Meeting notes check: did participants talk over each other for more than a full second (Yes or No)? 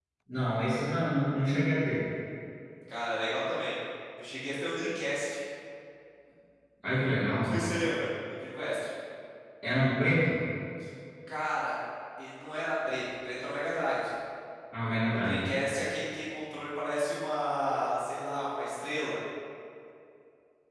No